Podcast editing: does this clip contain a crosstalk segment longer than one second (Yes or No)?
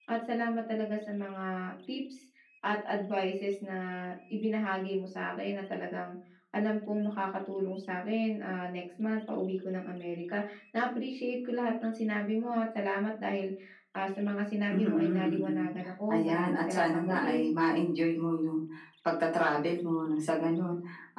Yes